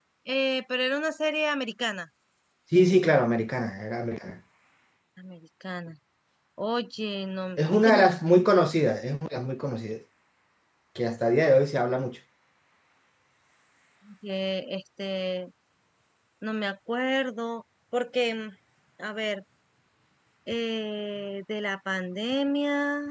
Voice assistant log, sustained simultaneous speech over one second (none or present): none